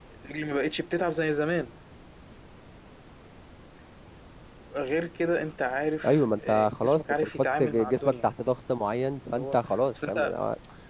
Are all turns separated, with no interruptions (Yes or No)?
No